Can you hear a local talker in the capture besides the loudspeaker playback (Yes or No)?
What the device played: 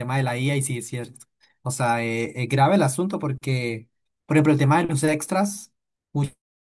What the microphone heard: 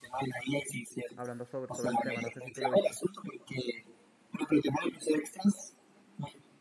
Yes